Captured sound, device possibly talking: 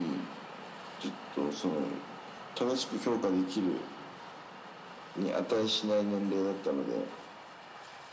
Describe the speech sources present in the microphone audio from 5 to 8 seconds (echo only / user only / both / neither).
echo only